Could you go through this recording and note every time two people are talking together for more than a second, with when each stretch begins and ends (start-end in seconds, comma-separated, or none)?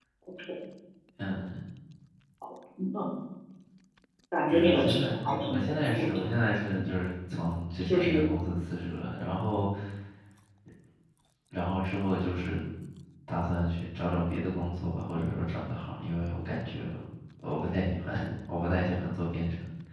4.5-6.2